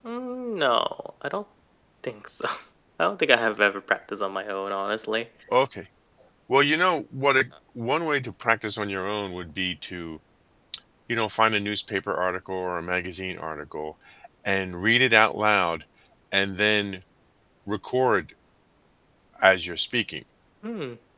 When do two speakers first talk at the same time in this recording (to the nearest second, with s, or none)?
none